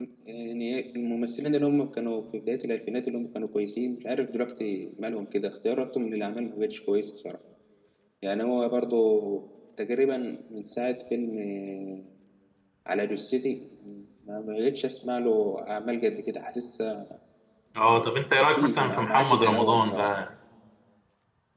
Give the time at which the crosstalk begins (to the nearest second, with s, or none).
18 s